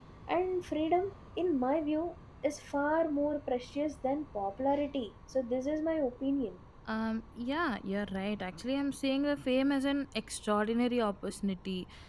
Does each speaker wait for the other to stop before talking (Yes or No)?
Yes